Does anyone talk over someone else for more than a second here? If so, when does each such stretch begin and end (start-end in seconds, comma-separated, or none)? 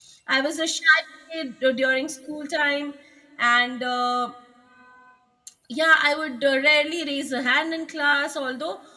none